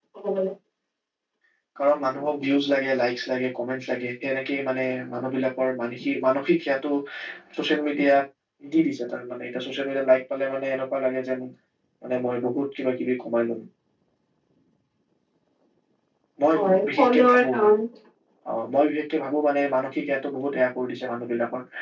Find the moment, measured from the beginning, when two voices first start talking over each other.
16.5 s

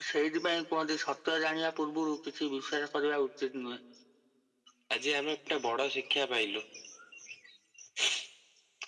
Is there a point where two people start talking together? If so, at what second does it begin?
none

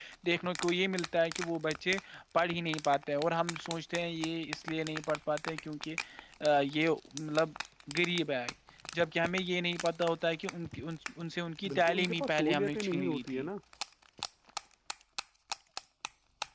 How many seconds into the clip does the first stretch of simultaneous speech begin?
11.7 s

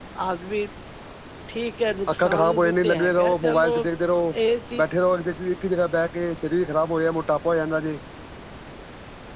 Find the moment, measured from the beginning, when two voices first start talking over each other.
2.1 s

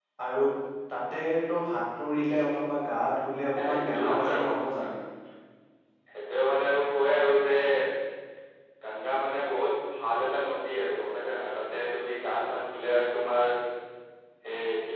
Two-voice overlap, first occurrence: 3.6 s

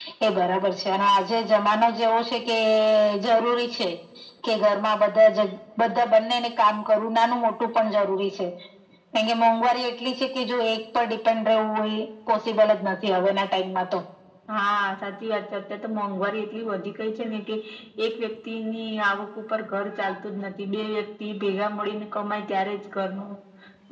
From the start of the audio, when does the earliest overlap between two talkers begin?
none

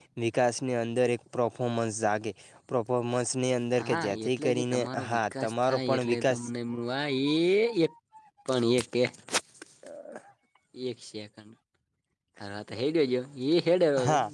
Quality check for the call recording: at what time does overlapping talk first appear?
3.8 s

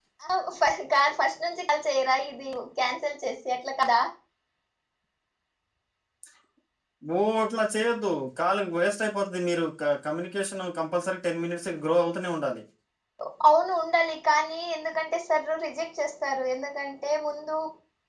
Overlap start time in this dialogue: none

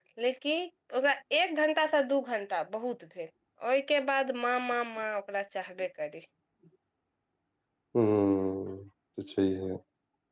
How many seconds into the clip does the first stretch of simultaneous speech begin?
none

